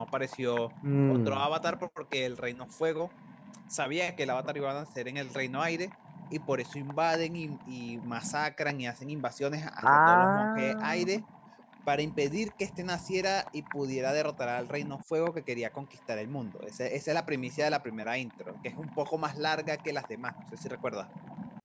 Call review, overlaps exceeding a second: present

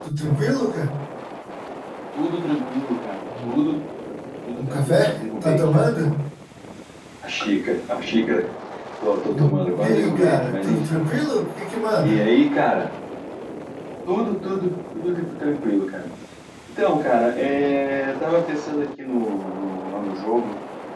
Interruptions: present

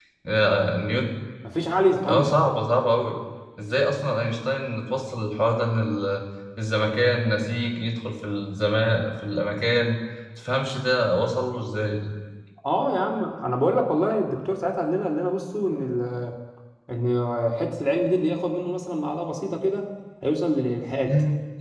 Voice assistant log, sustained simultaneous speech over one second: none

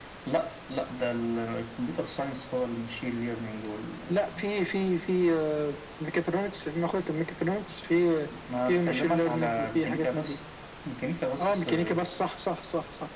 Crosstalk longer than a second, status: present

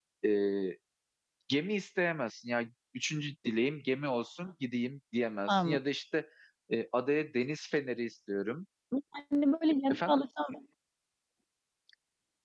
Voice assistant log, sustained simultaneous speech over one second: none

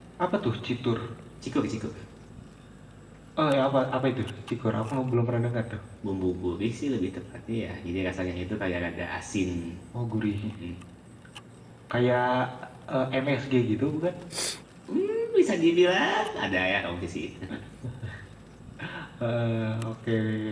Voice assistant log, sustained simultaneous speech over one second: none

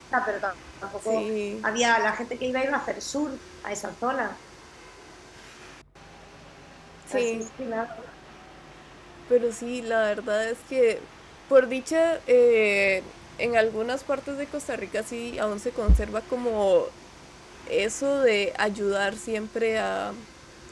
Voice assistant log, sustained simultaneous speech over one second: none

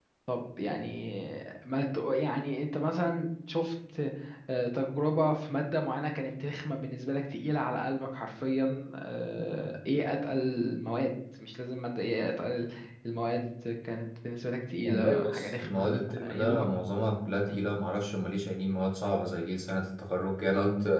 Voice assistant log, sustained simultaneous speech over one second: present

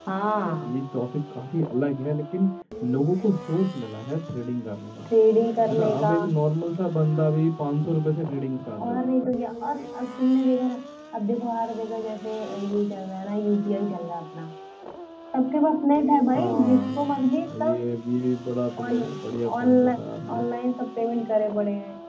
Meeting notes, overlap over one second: present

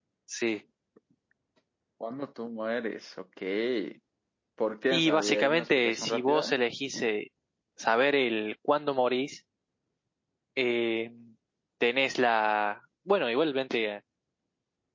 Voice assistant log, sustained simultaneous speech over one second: present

